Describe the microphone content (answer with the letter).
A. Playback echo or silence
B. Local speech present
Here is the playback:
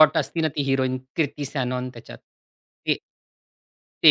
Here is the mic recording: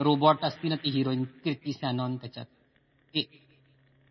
A